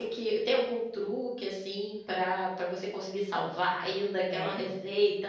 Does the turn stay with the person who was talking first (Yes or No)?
Yes